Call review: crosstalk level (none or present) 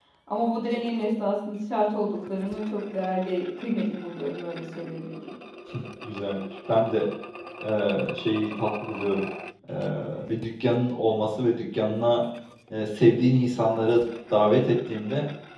none